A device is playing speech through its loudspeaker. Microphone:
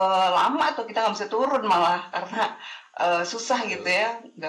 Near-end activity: present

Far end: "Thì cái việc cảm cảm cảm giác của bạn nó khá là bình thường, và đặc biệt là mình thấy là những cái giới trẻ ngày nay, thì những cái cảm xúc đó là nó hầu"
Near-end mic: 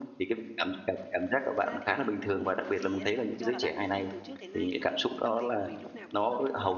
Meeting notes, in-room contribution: present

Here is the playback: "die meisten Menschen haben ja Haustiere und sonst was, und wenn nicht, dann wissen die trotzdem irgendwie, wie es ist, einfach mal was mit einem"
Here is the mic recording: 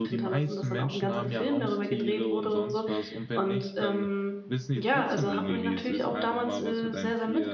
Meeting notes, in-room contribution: present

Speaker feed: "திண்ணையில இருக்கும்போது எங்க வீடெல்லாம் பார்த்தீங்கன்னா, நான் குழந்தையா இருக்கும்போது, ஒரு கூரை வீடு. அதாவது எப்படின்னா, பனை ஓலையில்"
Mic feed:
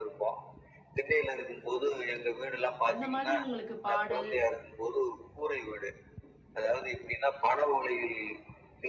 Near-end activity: present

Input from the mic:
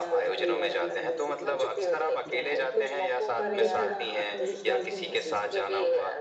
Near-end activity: present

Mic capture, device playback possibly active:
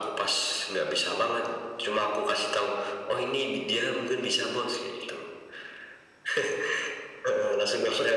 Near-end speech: none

